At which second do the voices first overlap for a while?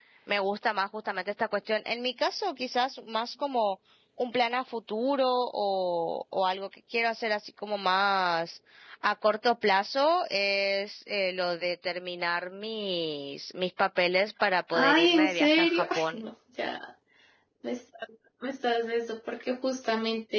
14.7 s

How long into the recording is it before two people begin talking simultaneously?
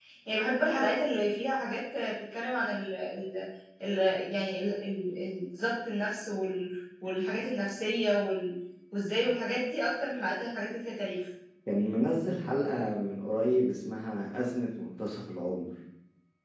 none

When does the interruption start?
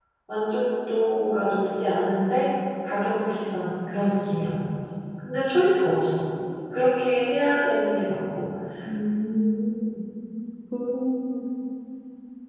none

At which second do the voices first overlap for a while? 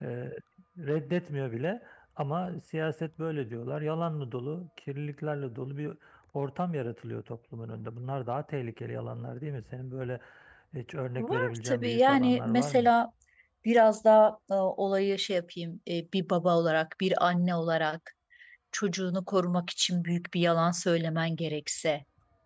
11.2 s

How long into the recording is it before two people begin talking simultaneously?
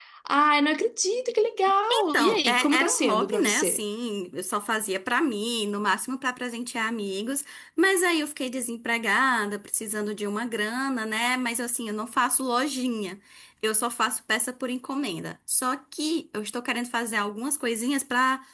1.9 s

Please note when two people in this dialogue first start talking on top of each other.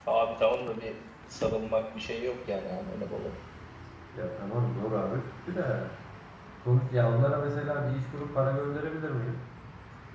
none

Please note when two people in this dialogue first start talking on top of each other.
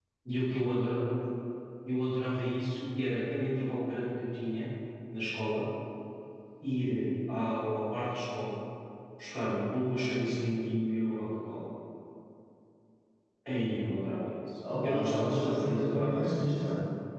14.6 s

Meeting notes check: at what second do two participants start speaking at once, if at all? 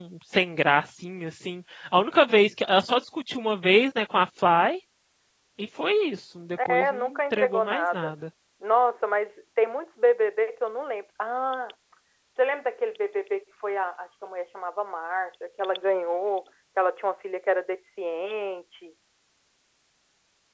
6.6 s

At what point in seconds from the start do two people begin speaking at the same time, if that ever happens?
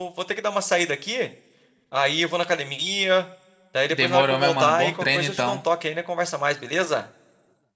3.9 s

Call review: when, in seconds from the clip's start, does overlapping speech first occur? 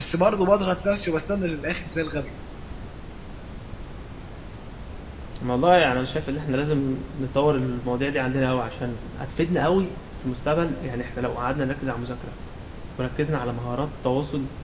none

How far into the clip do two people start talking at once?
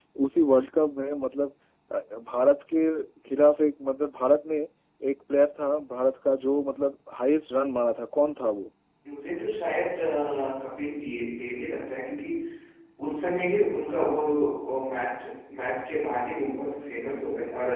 none

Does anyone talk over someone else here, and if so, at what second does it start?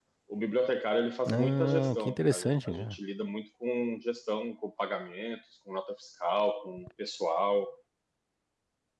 1.3 s

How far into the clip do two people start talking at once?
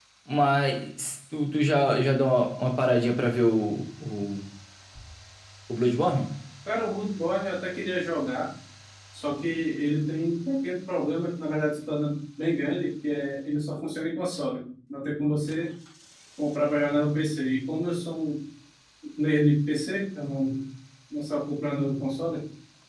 none

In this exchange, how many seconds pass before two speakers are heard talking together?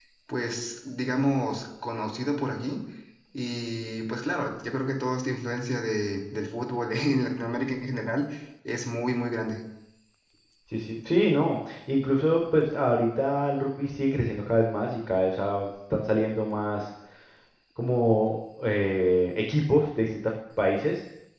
none

